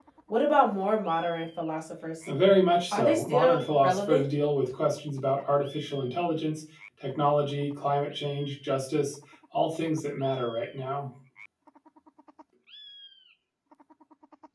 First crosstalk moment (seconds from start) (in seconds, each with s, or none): 2.9 s